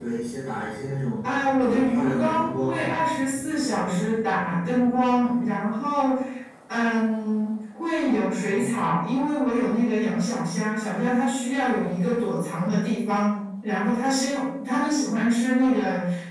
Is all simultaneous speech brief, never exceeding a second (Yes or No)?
No